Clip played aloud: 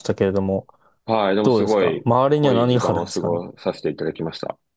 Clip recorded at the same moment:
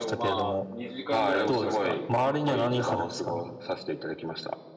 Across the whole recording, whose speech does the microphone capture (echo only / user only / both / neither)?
both